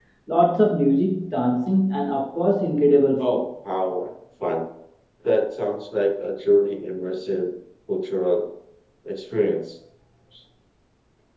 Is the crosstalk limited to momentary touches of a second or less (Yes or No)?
Yes